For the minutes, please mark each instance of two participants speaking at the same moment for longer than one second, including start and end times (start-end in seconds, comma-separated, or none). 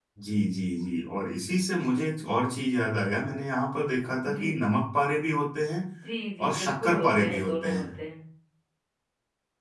6.4-7.8